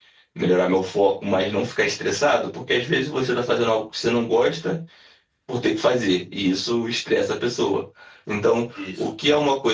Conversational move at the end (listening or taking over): listening